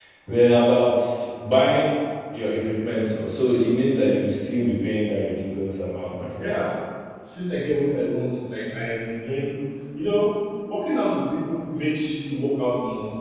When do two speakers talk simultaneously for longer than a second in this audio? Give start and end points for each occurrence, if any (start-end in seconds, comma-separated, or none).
none